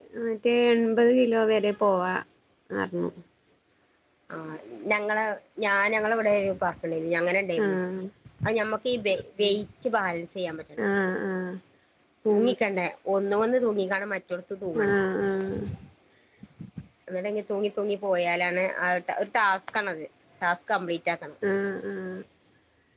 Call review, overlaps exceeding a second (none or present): none